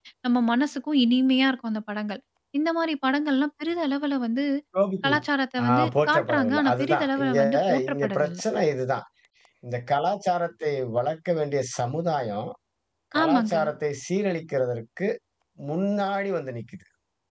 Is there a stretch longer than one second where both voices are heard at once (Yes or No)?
Yes